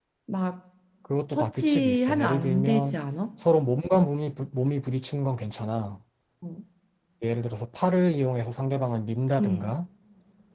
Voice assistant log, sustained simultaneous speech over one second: present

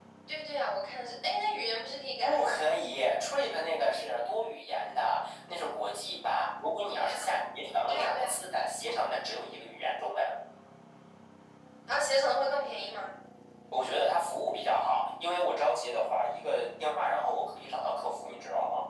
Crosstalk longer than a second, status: none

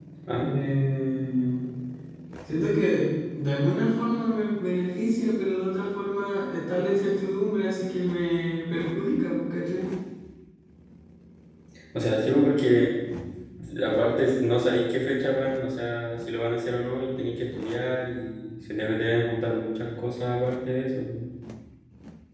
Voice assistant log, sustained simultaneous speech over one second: none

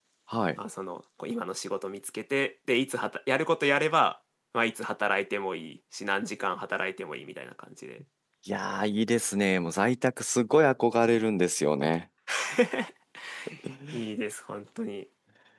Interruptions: none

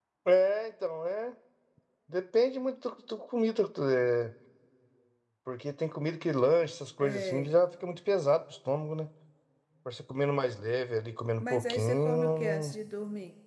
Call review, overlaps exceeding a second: present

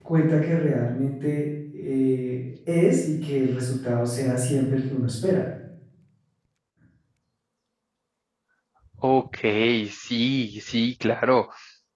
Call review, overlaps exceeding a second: none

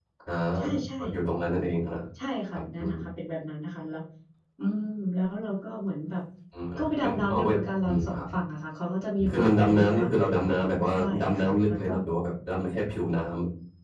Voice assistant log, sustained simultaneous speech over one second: present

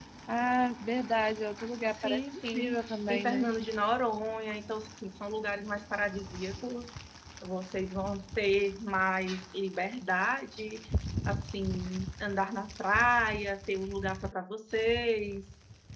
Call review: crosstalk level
present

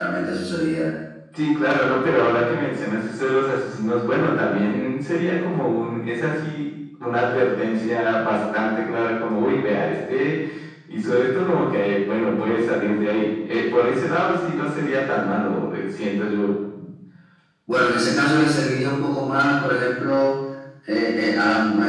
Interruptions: none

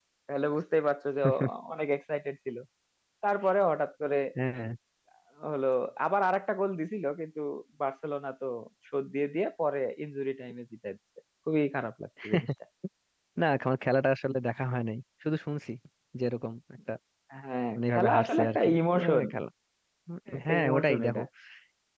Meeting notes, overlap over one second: present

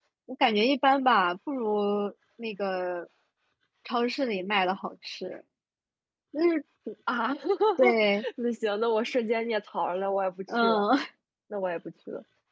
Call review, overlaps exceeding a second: none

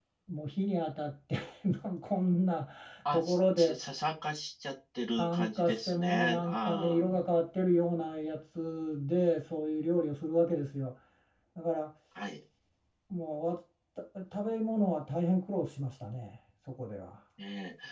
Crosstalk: present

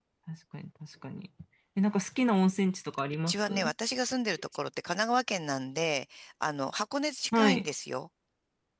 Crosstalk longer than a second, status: none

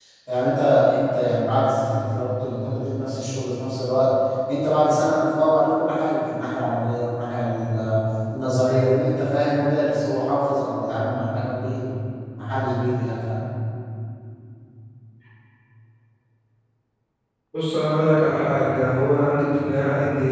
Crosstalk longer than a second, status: none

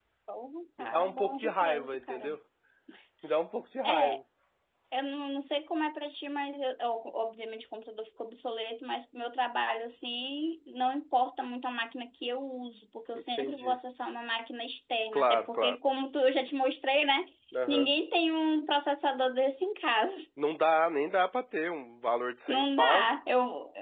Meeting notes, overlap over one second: present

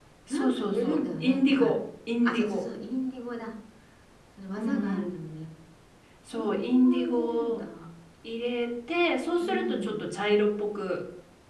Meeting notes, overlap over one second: present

